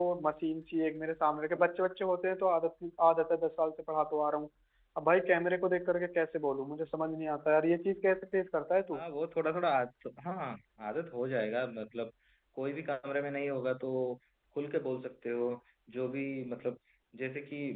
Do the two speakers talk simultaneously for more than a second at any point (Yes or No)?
No